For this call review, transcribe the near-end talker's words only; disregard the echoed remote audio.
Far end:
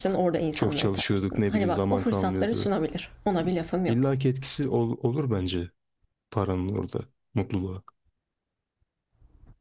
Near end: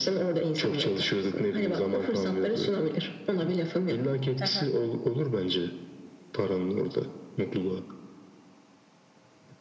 Hı hı.

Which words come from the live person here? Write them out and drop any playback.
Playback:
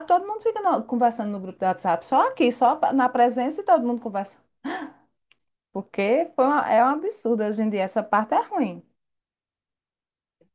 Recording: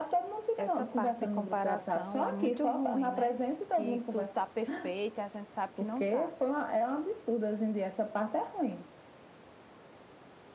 essa parte de comparação é muito ruim, né? Que tudo tá perfeito, e a gente sabe que não tá.

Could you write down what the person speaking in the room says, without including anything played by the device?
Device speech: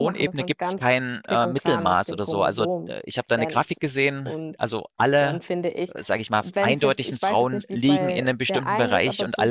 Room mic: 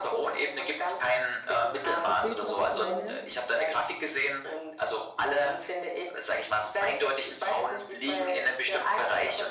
Verstehst du, was ich meine?

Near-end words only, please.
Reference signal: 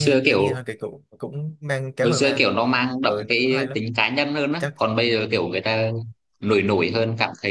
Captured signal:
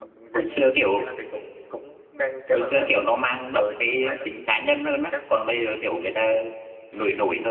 none

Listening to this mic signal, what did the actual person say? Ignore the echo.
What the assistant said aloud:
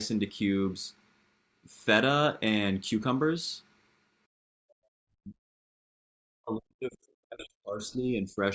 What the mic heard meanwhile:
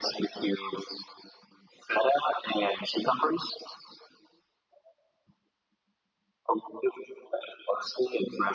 none

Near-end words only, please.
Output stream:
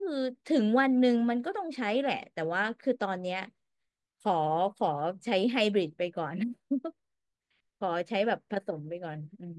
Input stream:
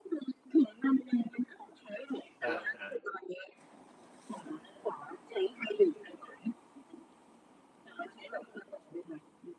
ครับครับ

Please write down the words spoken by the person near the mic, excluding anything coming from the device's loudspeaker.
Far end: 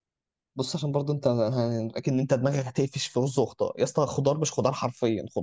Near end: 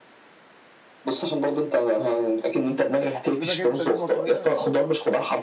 اكلتك انت دي مصريه

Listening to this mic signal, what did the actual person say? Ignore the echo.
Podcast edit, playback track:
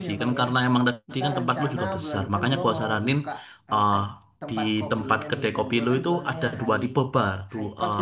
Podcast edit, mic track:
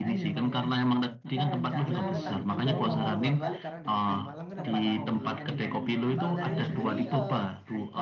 gue sebenarnya takut juga nih Bang kalau nggak balik karena di, di Malang kan ada banyak banget nih Bang. Kalau dari lu sendiri eh,

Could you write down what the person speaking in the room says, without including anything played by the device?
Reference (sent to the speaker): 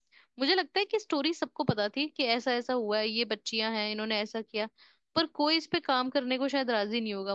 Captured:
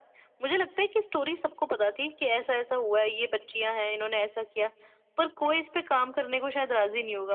none

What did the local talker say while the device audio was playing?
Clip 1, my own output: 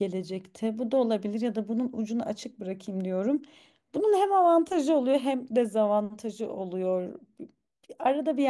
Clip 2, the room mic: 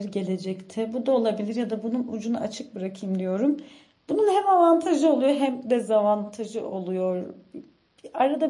none

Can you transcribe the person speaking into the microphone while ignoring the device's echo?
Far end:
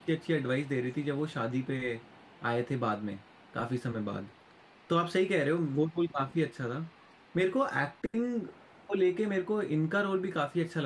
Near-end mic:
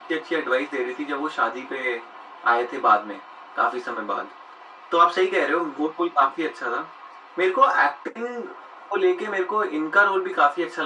none

